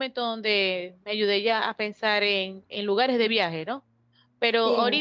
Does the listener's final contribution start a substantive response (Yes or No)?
No